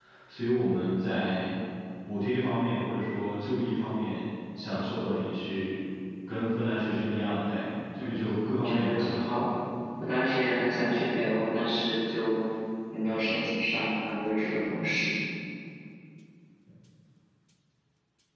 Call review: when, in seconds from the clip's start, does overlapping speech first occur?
8.0 s

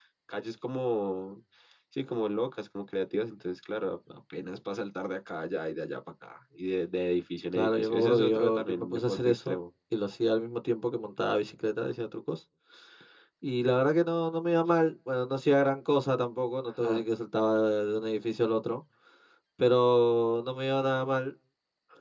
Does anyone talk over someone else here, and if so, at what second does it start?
7.5 s

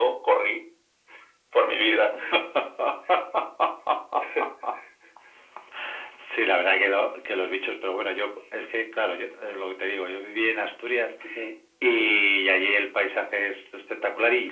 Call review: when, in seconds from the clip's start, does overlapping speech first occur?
none

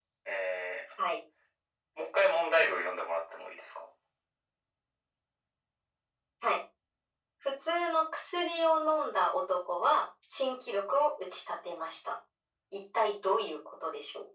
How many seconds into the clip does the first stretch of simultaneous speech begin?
none

